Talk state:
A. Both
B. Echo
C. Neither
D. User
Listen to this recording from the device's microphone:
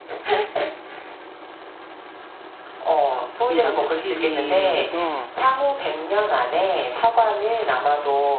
A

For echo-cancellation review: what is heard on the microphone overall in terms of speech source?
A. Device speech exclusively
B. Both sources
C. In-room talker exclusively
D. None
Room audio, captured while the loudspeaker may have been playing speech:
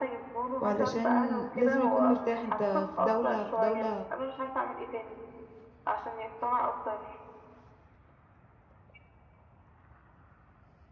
B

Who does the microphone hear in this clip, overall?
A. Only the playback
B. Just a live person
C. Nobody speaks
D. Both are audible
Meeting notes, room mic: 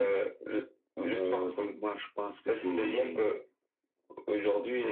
A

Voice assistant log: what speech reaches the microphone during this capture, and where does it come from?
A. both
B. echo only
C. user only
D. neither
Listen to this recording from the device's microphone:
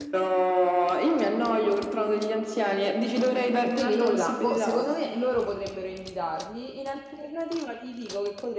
A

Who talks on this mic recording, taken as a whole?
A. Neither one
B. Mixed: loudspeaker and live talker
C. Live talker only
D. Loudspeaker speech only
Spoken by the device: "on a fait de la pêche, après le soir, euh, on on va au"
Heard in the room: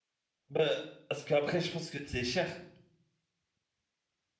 C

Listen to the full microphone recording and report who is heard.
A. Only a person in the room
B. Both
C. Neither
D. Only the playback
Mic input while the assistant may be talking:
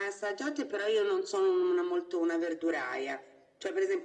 D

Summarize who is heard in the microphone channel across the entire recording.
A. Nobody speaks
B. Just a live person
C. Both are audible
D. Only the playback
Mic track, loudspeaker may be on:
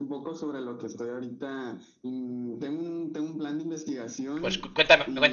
C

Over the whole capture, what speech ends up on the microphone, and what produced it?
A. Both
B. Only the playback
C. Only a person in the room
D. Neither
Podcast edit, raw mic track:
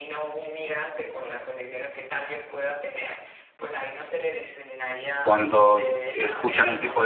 A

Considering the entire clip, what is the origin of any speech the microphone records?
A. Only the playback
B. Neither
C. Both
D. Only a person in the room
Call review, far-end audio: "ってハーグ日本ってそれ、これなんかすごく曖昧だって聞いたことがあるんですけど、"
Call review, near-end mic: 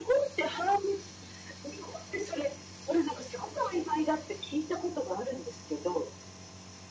A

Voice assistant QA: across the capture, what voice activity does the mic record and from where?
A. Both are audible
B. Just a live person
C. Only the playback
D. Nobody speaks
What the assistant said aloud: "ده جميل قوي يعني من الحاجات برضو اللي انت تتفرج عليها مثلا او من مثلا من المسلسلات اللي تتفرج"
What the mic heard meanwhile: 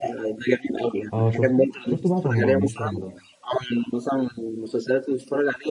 A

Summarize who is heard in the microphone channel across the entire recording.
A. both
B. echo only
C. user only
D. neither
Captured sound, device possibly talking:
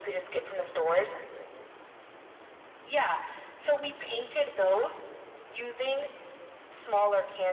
B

